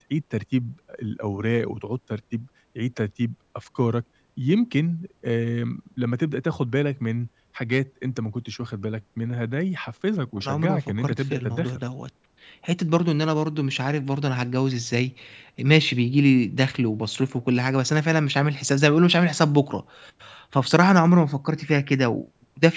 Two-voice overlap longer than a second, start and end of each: 10.4-11.8

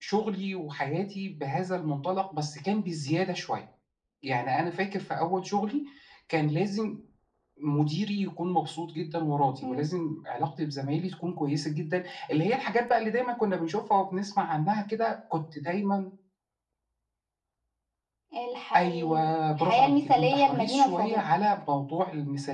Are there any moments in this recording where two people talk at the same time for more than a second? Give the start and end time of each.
18.8-21.2

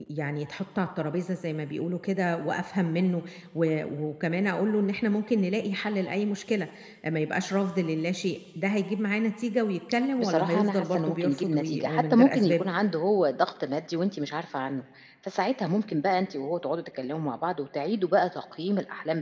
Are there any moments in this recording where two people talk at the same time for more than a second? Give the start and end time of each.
10.2-12.7

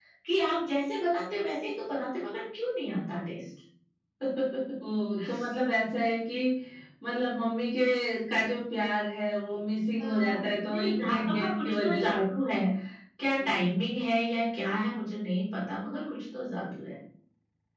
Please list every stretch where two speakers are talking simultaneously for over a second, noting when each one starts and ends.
10.0-12.2

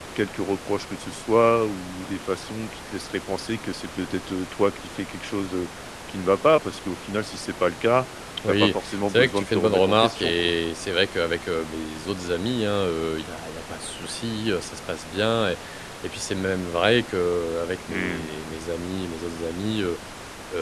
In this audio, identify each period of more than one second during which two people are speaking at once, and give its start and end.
8.5-10.5

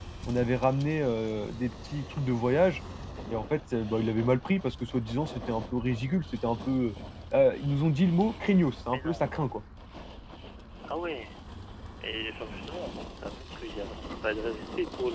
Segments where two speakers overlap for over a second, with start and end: none

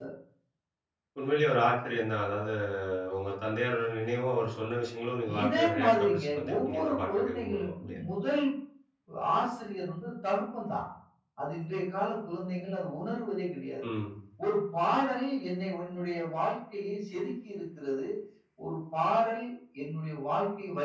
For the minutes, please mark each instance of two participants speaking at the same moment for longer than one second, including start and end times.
5.4-8.0

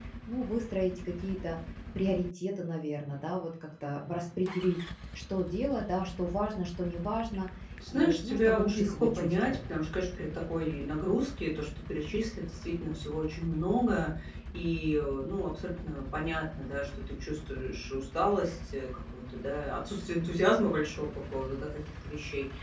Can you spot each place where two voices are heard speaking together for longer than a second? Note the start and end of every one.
7.9-9.6

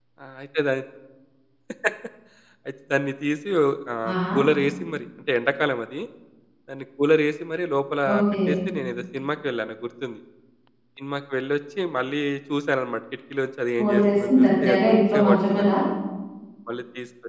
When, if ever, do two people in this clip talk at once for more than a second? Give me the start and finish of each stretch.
13.8-15.7

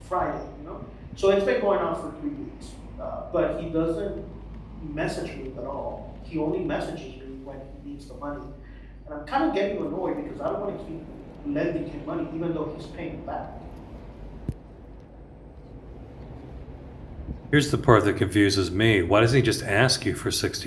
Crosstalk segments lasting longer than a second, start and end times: none

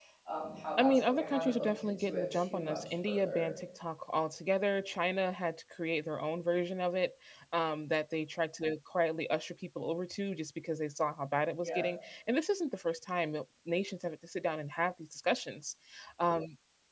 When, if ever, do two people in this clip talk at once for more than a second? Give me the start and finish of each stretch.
0.8-3.5

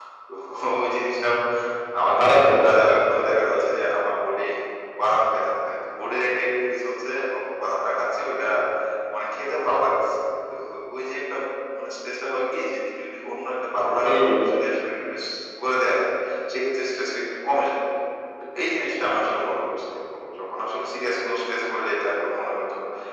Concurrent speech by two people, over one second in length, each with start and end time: 2.2-3.6

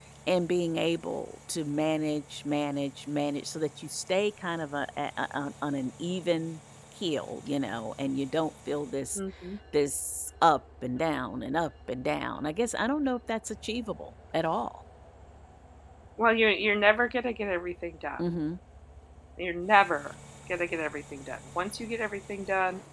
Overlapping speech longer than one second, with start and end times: none

